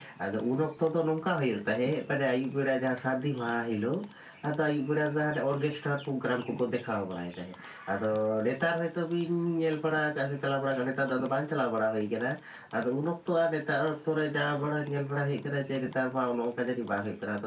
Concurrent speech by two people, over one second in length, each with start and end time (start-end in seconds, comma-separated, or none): none